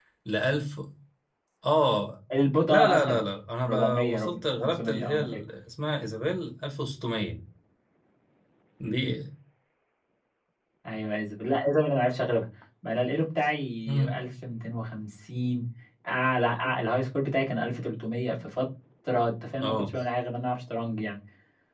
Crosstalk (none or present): present